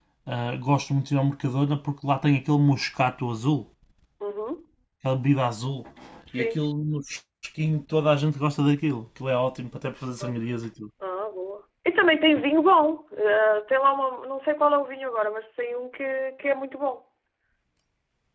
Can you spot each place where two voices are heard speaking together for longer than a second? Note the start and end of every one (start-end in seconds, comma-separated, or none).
none